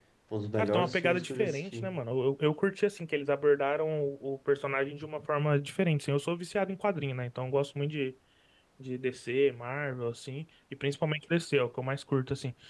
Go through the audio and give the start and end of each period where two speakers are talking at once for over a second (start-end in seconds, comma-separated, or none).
0.6-1.9